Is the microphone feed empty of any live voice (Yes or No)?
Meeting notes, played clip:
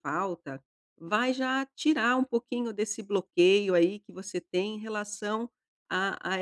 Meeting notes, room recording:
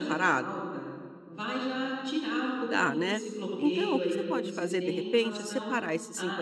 No